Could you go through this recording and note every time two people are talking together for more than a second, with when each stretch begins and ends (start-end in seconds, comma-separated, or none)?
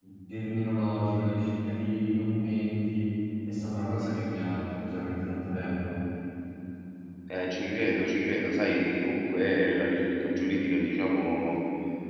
none